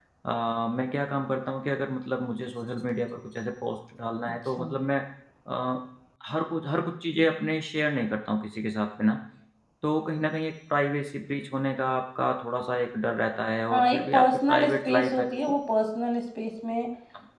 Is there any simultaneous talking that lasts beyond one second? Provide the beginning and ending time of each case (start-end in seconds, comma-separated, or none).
13.7-15.5